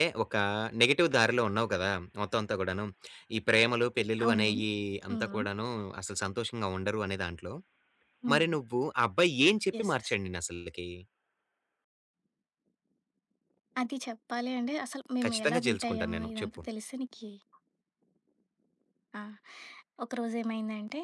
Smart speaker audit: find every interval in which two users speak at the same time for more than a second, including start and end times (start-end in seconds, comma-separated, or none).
15.2-16.6